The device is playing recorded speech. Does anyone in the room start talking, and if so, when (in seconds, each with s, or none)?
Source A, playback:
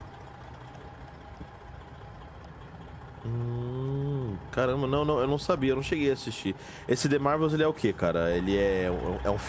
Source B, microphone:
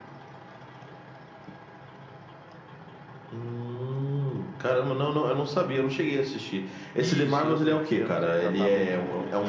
7.0 s